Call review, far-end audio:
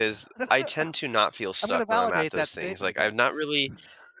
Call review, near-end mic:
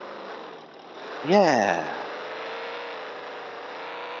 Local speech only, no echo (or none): Yeah.